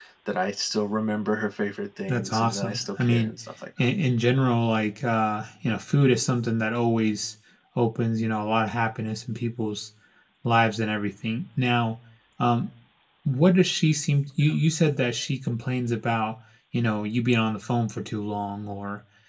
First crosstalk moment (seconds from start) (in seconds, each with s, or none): 2.1 s